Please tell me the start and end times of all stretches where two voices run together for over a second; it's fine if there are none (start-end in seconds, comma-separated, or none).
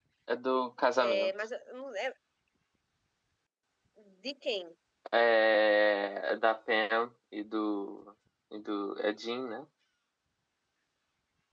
none